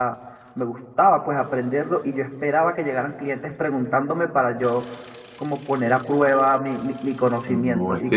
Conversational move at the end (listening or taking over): taking over